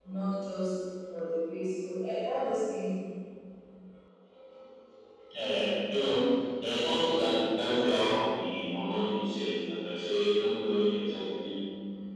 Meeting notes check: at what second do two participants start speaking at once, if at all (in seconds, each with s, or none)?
none